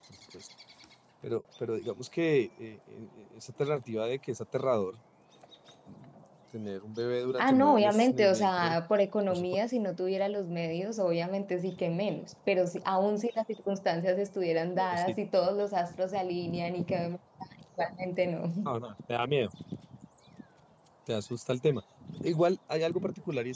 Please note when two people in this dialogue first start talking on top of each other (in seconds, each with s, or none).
7.4 s